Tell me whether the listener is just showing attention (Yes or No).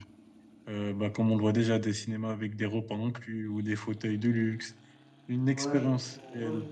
No